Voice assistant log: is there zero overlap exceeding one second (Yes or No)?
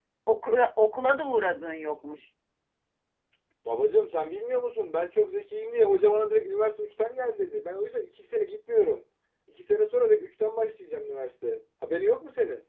Yes